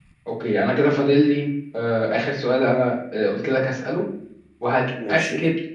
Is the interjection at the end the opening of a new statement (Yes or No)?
No